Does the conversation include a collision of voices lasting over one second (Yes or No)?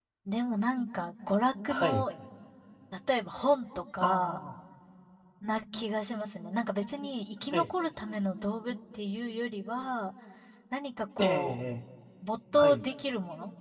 No